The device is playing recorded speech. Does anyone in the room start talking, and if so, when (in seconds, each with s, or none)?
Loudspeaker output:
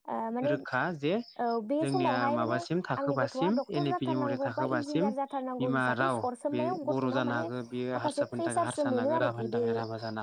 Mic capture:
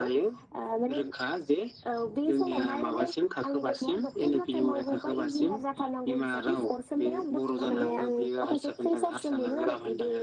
7.7 s